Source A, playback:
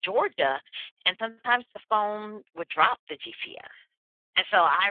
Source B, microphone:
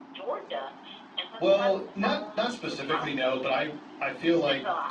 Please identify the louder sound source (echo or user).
user